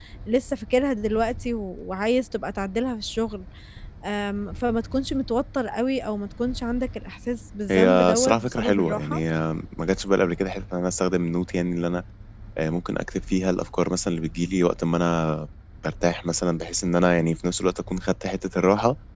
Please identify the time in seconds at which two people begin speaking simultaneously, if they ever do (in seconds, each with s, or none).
7.7 s